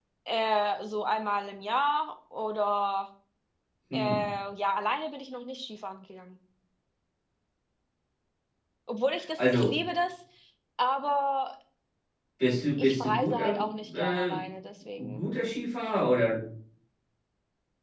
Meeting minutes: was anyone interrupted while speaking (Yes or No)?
Yes